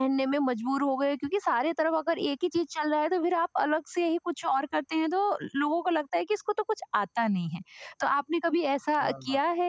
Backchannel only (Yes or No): Yes